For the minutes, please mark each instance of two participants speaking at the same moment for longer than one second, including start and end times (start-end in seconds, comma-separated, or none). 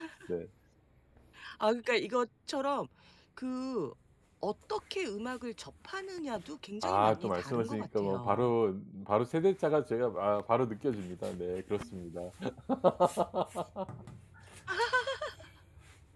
6.8-8.5